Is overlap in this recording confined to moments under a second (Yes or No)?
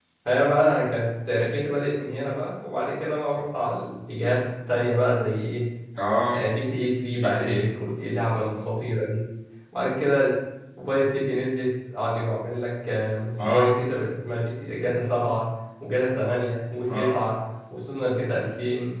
Yes